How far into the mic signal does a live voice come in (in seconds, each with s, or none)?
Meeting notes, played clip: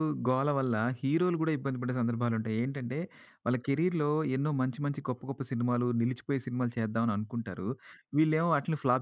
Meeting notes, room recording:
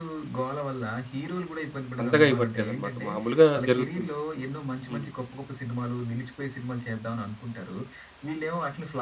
2.0 s